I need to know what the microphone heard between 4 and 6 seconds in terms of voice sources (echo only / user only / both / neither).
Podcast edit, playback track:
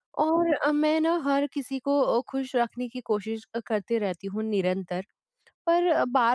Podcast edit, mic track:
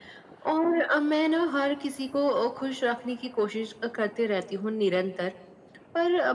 echo only